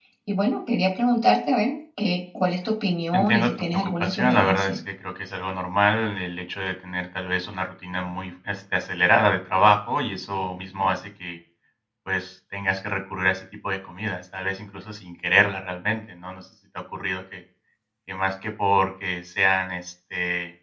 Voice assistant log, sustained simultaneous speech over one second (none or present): present